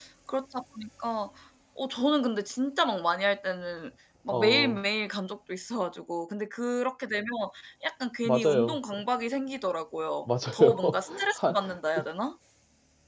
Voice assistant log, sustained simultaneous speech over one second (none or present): present